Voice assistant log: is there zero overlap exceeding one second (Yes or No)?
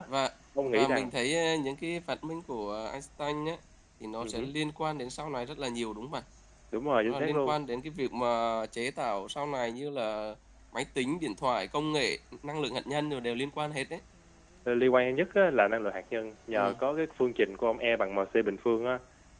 Yes